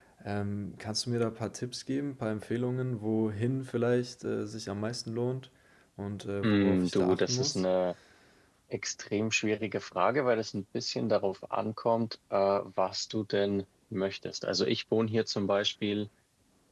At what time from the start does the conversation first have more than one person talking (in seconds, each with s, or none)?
6.4 s